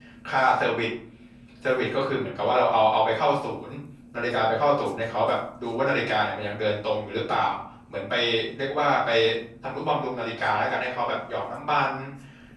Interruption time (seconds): none

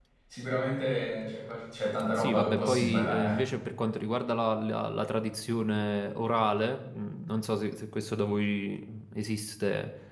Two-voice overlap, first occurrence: 2 s

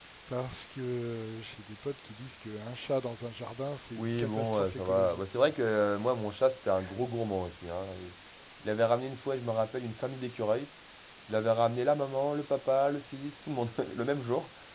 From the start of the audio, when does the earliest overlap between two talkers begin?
4 s

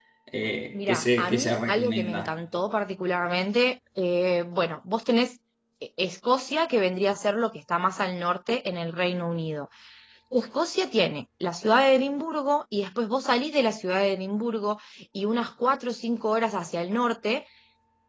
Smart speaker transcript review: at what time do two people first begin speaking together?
1 s

